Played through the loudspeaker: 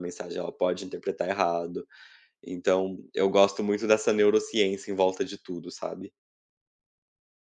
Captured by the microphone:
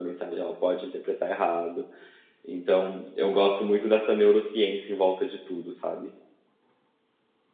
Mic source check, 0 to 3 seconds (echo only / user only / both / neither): echo only